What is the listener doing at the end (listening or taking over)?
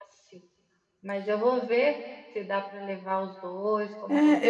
taking over